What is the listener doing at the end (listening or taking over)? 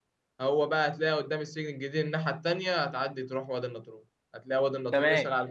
listening